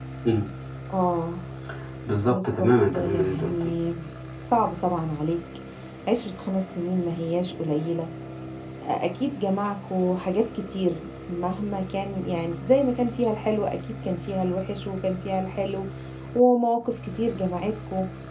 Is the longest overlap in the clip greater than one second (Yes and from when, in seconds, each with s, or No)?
Yes, from 2.3 s